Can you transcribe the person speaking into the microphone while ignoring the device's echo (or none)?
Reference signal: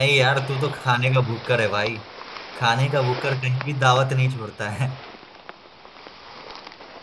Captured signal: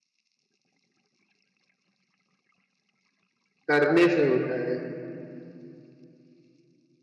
करने से होता है